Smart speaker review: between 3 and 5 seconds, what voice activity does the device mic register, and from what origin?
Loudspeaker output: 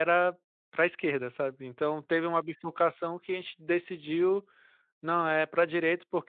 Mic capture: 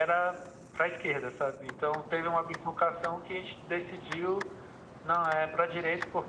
echo only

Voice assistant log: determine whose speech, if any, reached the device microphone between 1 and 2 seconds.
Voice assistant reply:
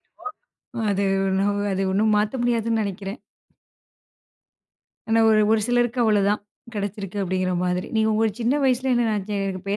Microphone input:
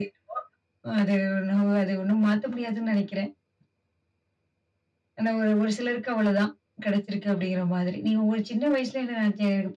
echo only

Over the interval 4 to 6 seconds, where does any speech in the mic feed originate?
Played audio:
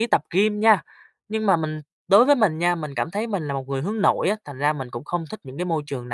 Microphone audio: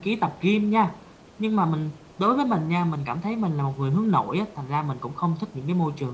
echo only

